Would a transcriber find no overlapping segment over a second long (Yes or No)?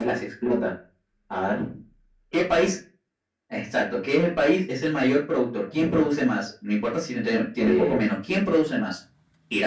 Yes